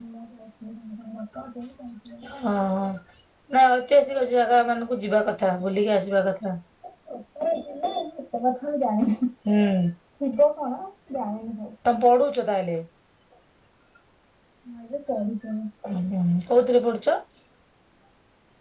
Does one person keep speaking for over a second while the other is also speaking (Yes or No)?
No